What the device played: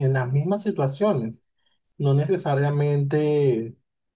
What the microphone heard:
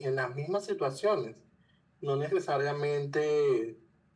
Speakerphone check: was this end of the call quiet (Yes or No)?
Yes